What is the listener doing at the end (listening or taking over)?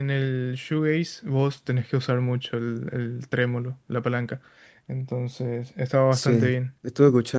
taking over